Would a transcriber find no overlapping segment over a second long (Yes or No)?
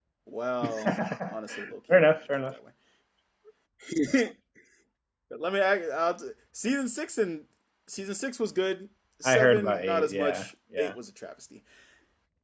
No